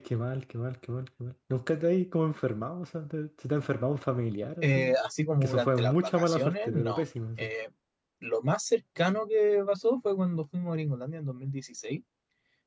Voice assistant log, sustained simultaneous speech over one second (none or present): present